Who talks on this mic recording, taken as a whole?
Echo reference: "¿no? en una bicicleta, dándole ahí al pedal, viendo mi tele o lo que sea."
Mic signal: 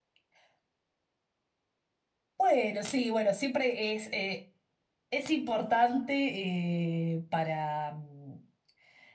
user only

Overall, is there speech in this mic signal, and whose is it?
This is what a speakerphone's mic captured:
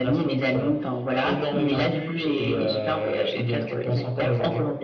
echo only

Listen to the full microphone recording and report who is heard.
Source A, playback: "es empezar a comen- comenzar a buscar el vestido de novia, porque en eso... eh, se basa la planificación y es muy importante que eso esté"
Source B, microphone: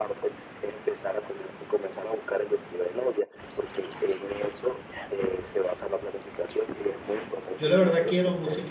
both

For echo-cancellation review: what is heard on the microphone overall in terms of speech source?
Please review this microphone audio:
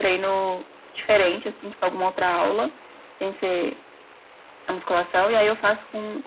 echo only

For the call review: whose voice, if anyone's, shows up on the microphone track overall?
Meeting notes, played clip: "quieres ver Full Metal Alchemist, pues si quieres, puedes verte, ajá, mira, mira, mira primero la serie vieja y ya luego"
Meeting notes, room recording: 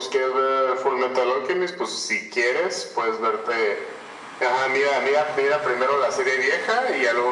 echo only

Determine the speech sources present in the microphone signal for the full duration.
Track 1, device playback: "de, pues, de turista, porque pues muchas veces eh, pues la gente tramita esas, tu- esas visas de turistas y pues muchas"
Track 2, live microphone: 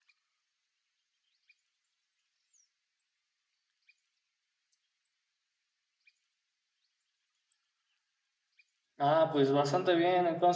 user only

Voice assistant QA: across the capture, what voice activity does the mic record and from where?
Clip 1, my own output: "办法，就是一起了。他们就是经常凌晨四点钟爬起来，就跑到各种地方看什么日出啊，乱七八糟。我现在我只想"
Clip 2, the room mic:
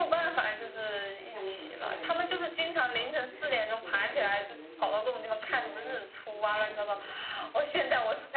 both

